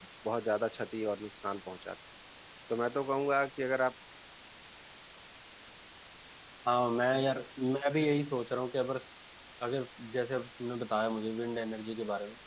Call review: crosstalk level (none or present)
none